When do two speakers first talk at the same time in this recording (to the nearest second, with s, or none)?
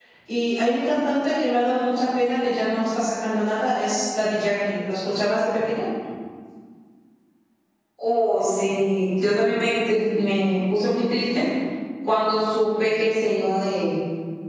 none